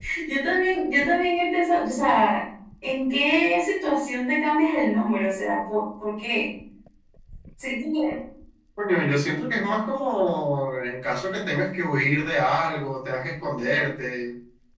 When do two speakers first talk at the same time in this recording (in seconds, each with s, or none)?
none